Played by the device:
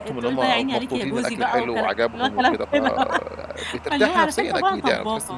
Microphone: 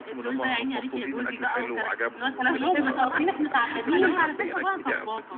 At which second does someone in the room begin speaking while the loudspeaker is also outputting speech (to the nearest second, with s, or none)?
2 s